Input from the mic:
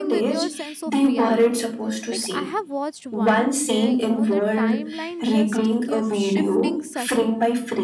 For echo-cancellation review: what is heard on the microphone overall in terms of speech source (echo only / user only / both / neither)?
both